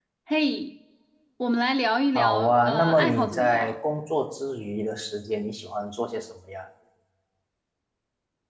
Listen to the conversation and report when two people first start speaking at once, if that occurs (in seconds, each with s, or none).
2.1 s